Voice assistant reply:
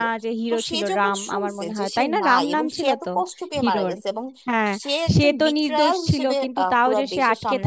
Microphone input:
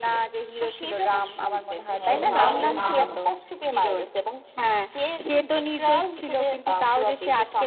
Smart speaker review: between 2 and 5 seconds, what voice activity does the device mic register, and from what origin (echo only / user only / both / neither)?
both